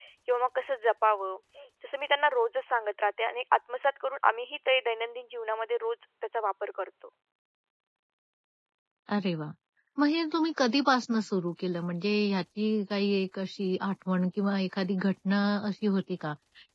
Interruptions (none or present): none